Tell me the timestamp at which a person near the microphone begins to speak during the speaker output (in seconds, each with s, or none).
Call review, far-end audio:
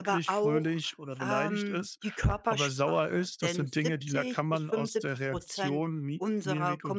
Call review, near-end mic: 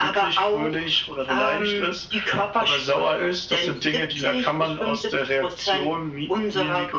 none